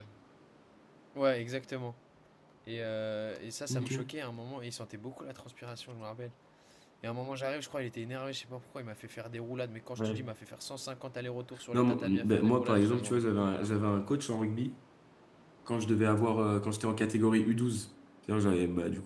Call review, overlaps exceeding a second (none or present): present